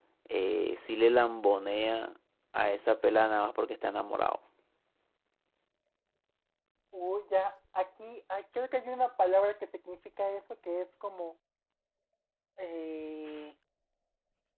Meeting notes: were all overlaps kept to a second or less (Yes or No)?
Yes